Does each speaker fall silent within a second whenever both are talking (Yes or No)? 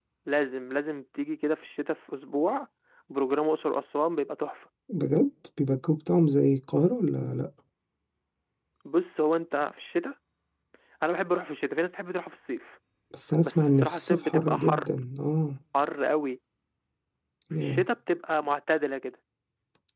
No